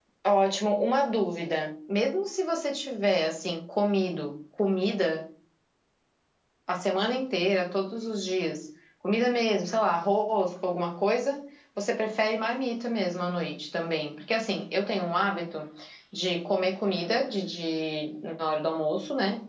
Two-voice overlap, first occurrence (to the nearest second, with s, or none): none